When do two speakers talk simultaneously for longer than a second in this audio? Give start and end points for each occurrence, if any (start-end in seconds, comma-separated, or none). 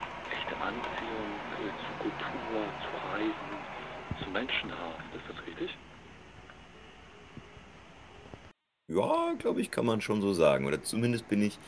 none